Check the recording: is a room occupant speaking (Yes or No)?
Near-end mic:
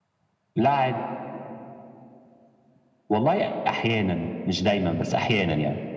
No